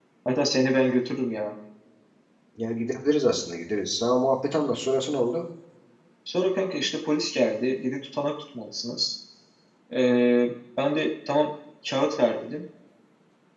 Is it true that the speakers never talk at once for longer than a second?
Yes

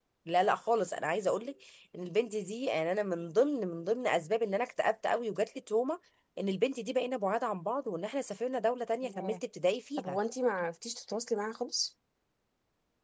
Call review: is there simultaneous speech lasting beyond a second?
No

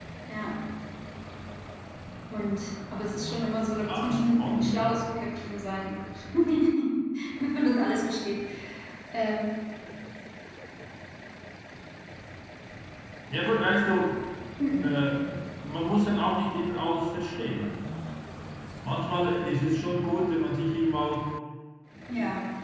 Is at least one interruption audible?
Yes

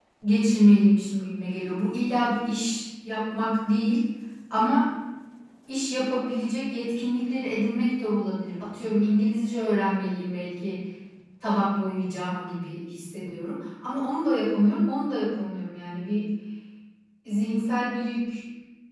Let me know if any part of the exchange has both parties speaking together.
No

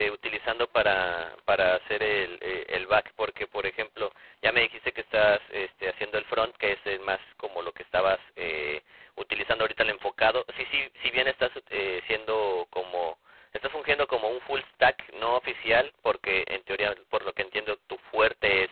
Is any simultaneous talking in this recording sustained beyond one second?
No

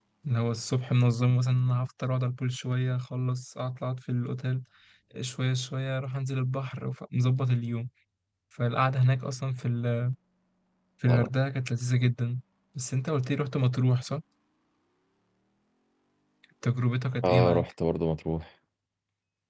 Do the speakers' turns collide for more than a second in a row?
No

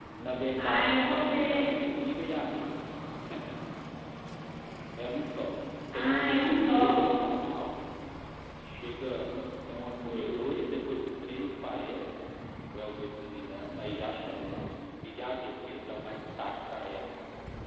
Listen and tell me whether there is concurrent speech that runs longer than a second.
Yes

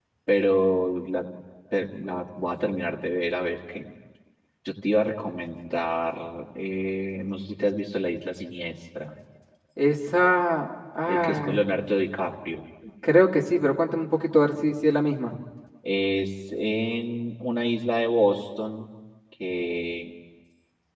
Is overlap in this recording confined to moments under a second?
Yes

